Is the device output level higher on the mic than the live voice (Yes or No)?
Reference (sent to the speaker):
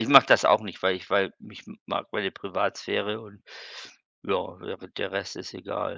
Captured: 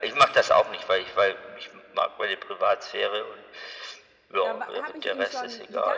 Yes